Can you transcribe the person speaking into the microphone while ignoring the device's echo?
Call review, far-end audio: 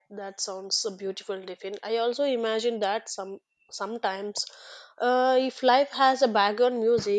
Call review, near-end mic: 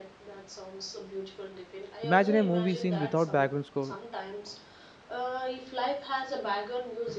Imagine a movie scene without background score;

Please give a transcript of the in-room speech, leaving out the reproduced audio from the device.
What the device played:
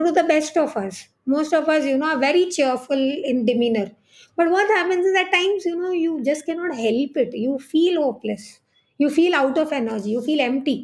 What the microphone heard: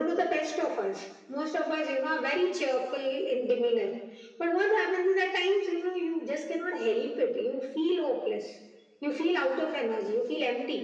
none

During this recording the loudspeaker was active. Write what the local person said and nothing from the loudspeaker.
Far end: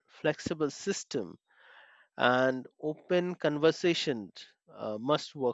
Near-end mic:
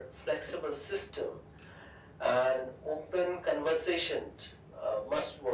none

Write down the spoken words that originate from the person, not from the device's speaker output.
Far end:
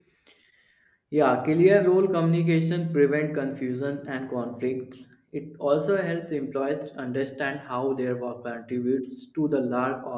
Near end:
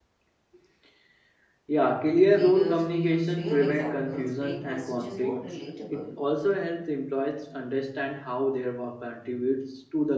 Leaders who use real examples make messages more relatable.

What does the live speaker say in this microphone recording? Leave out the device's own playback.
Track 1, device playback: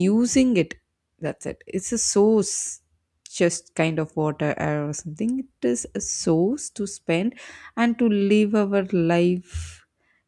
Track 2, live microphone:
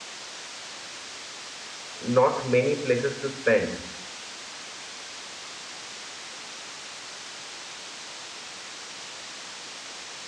not many places to spend

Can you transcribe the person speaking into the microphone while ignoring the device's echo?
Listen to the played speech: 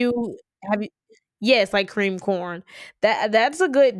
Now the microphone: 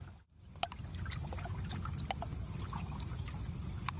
none

